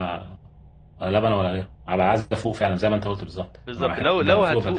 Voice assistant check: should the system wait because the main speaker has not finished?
No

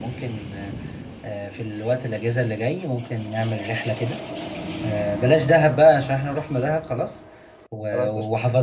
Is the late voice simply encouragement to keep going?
Yes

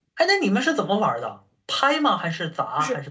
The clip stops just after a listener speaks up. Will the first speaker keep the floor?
No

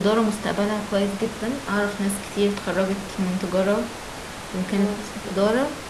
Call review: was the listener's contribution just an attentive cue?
Yes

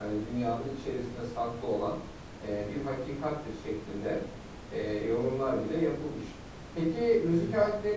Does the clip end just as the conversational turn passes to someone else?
No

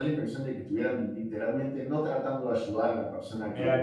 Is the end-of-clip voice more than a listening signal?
Yes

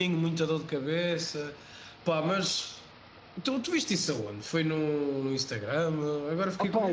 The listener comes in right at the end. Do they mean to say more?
Yes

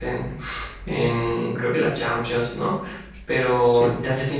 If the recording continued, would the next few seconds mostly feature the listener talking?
No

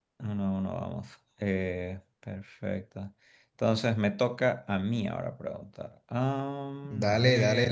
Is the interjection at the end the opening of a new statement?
Yes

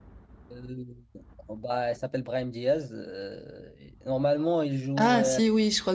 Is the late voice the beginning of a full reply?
Yes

